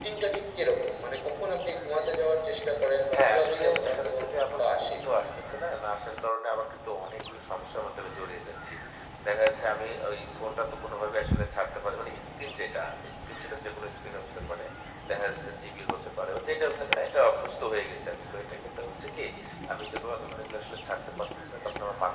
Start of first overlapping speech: 3.1 s

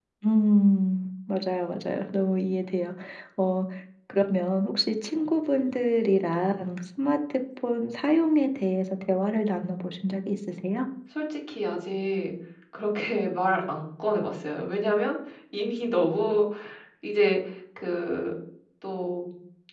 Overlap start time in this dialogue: none

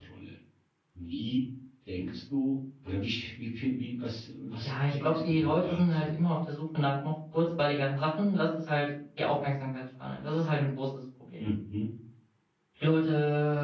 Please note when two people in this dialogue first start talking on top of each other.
4.6 s

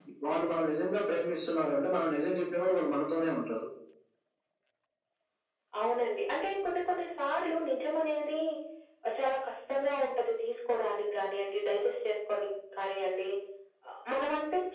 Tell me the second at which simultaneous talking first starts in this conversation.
none

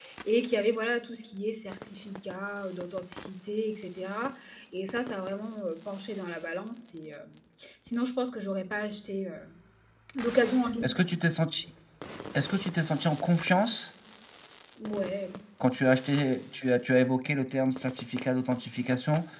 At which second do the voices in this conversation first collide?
none

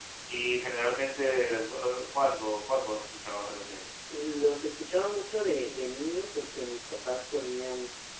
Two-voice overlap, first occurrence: none

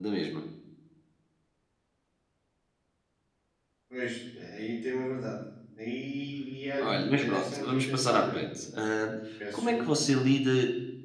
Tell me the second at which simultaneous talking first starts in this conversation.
6.8 s

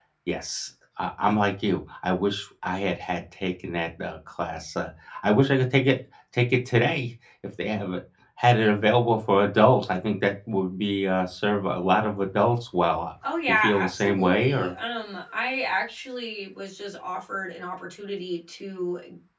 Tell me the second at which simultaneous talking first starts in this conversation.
13.5 s

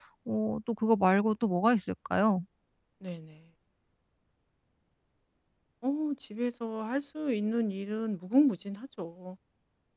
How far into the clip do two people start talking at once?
none

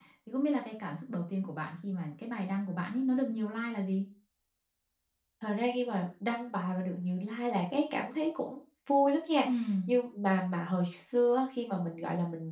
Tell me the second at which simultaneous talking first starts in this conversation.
none

